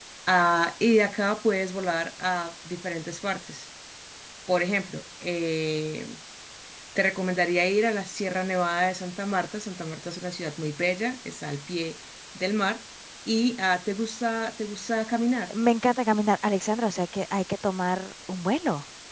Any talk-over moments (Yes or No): No